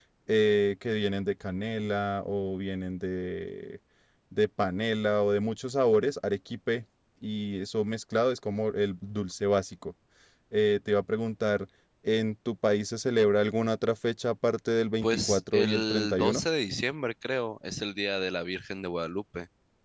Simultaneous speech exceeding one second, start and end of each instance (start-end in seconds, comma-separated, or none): 15.0-16.4